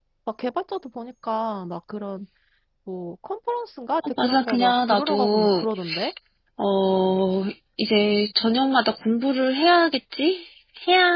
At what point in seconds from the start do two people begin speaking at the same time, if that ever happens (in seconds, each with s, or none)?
4.2 s